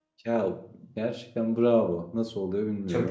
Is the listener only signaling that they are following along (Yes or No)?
No